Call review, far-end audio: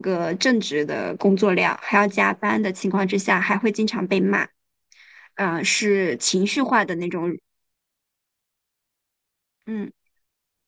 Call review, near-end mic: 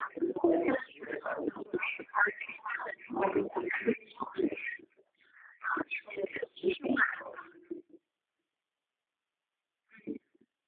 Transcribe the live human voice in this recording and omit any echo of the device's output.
none

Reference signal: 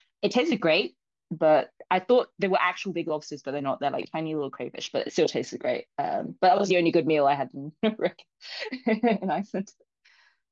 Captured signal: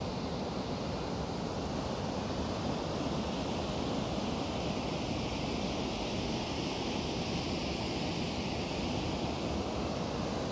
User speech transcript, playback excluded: none

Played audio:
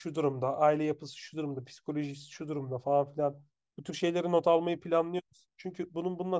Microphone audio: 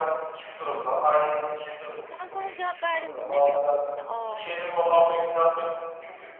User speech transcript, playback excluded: E kanka ona cevap verdim dinlemiyor musun beni? Aa

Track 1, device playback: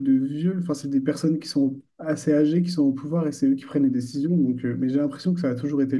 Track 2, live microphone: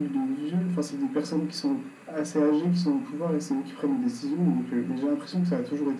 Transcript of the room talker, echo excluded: none

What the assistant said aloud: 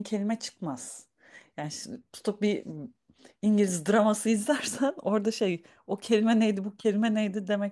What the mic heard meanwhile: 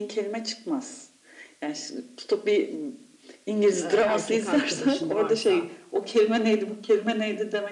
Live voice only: e, erkek arkadaşın varsa.

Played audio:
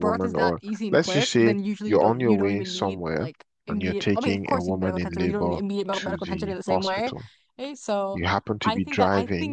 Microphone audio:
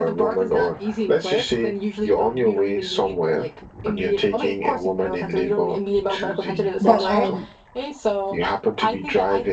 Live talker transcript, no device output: but um,

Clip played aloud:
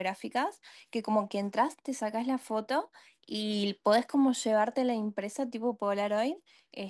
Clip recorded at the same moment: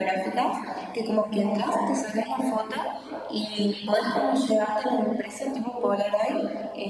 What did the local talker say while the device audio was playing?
none

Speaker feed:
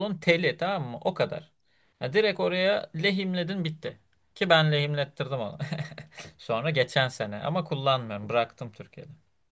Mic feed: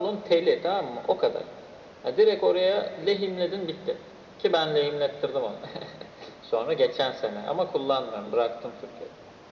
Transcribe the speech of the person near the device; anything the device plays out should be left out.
none

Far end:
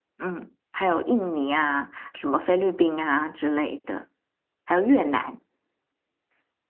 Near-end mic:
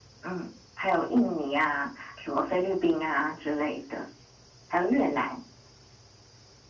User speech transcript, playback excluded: none

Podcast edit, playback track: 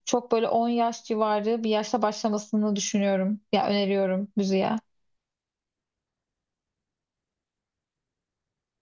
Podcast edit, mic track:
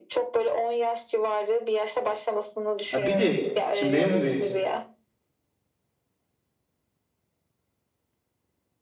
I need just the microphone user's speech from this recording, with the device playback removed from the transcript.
Ya bir de şimdi benim gibi

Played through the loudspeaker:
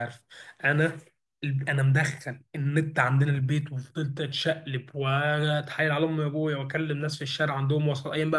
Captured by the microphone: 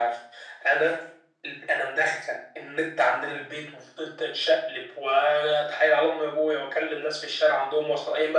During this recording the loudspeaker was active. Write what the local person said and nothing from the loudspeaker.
none

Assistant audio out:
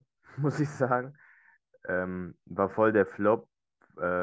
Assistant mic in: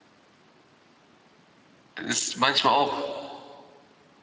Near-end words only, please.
Ist manchmal auch

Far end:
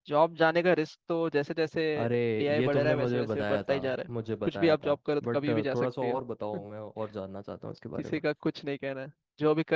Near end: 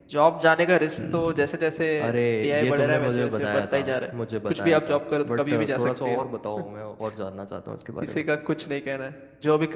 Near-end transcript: हम्म

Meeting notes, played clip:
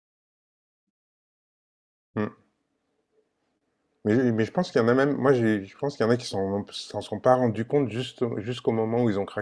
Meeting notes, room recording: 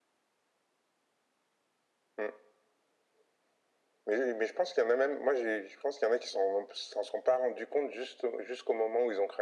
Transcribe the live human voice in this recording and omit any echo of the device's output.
none

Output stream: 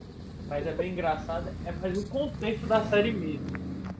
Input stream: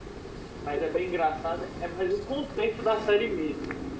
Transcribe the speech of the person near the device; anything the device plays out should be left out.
none

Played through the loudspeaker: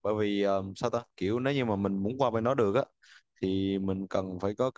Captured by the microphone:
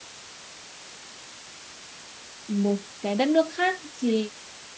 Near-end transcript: một cái đất nước khác thì

